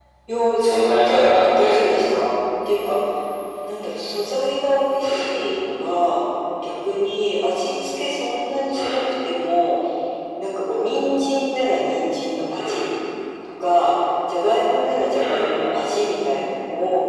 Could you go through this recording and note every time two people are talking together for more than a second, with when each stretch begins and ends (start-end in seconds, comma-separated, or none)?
0.6-2.0